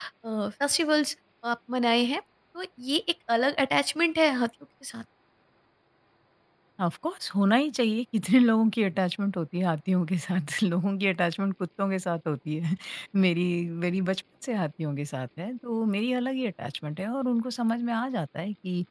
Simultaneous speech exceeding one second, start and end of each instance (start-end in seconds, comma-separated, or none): none